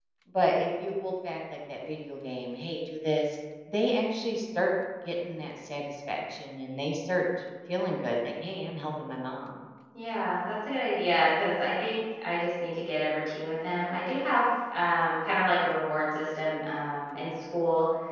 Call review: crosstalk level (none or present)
none